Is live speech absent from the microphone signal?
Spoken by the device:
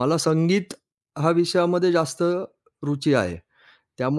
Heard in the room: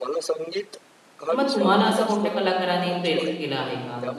No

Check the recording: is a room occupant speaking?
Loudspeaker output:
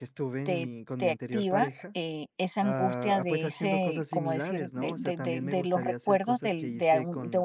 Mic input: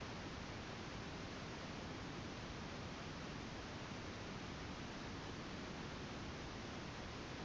No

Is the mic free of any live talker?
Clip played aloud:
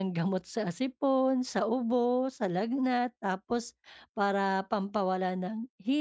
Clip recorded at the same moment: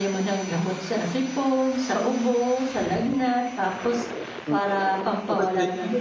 No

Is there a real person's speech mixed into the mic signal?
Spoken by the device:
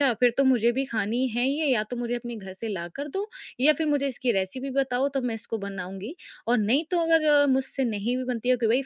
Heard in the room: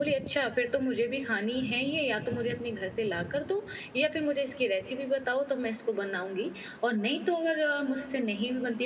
No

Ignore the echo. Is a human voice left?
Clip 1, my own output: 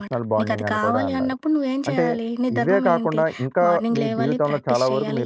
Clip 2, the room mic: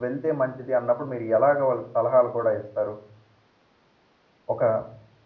Yes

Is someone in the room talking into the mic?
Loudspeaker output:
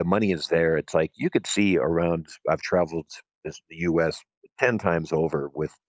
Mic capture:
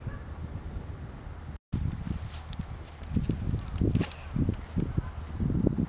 No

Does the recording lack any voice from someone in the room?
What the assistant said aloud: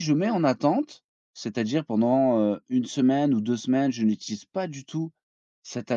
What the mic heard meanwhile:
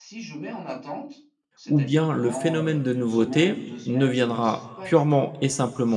No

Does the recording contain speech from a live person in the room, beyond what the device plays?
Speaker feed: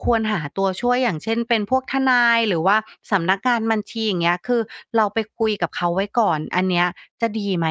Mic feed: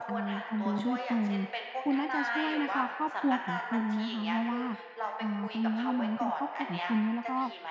Yes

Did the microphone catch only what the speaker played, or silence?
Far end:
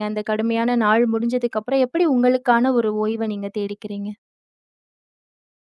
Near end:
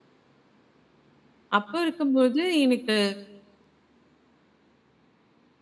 No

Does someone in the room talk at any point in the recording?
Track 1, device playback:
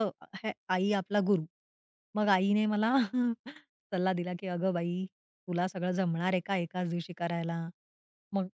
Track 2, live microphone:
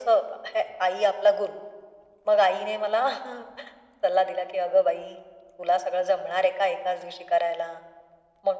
No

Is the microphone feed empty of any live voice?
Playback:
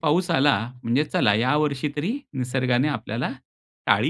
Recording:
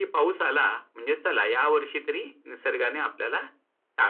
Yes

